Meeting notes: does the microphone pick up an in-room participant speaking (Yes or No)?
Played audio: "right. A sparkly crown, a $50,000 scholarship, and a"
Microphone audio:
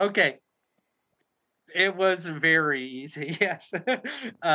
Yes